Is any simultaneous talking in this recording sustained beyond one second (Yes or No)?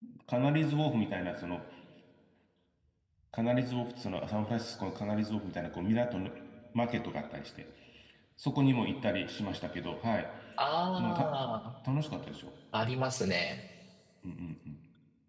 No